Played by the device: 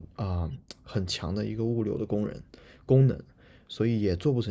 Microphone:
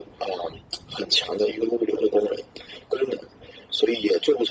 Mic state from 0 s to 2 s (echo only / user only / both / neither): echo only